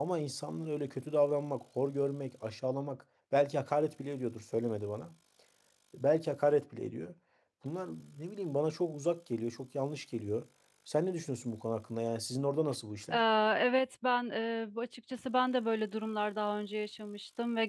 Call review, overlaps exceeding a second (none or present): none